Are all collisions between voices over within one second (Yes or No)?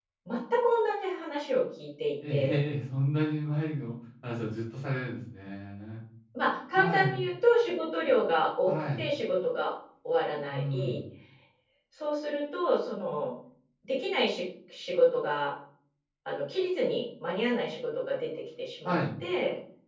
Yes